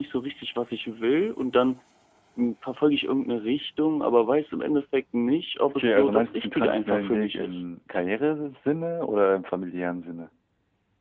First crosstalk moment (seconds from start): 5.7 s

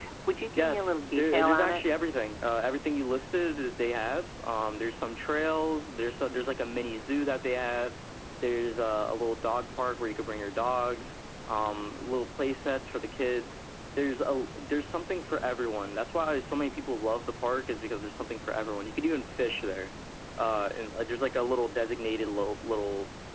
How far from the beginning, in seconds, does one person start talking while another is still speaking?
0.6 s

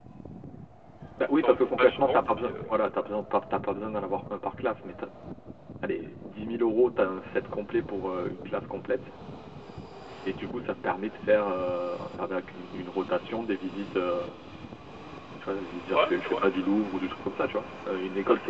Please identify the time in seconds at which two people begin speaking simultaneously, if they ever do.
1.4 s

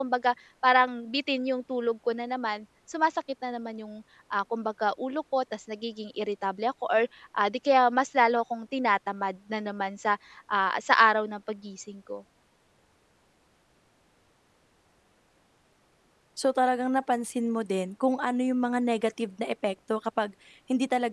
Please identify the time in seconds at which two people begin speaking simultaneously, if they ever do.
none

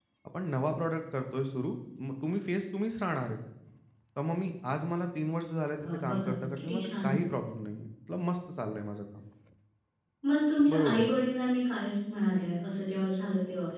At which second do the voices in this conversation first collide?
5.8 s

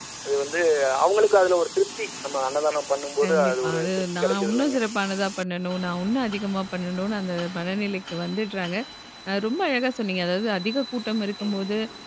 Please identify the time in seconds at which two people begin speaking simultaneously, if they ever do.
3.2 s

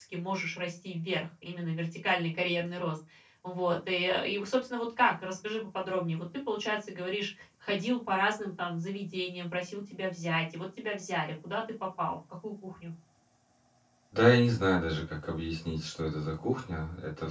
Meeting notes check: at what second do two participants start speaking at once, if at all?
none

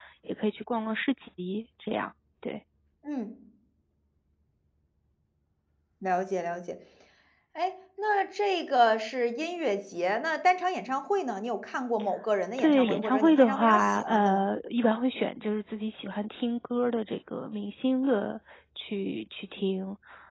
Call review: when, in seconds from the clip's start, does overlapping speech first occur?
12.6 s

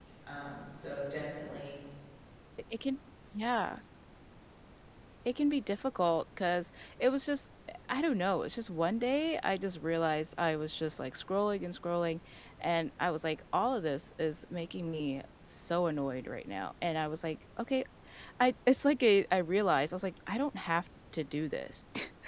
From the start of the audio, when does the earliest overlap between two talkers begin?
none

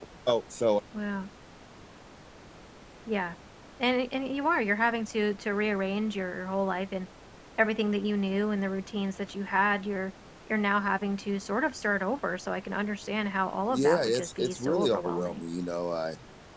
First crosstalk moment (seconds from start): 13.7 s

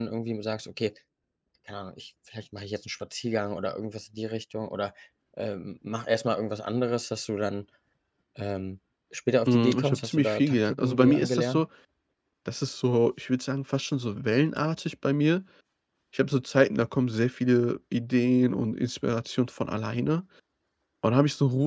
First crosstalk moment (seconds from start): 9.5 s

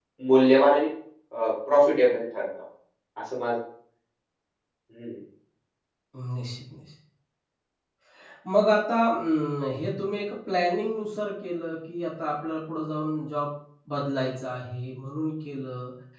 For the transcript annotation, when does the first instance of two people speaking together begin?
none

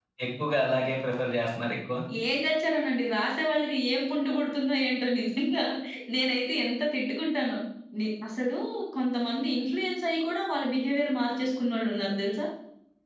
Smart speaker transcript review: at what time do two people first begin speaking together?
none

